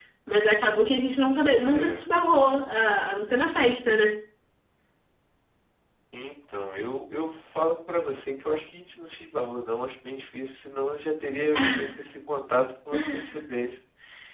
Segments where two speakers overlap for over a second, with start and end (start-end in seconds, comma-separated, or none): none